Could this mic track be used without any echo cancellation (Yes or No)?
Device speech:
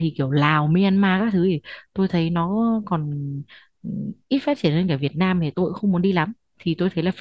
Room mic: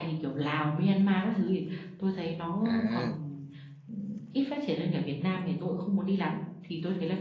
No